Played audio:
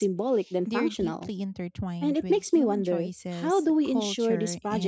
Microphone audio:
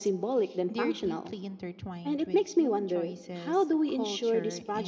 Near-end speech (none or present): none